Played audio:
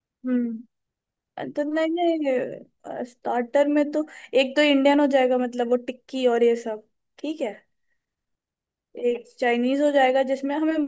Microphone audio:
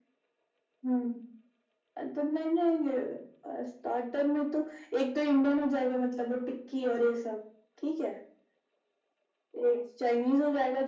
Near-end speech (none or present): none